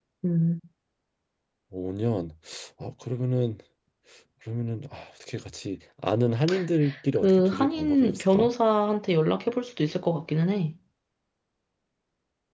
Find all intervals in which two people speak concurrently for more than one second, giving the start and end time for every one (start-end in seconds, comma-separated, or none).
7.2-8.5